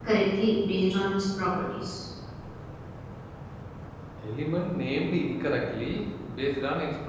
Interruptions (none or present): none